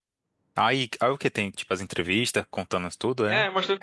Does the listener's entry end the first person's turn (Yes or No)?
Yes